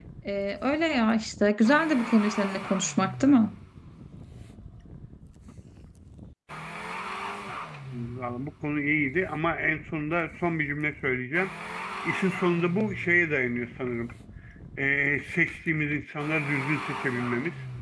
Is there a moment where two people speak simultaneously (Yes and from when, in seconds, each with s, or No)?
No